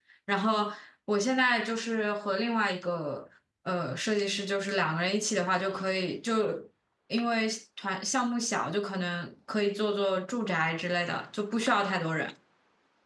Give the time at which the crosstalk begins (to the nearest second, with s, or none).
none